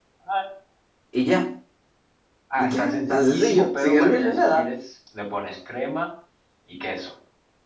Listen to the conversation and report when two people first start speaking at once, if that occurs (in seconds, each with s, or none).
2.6 s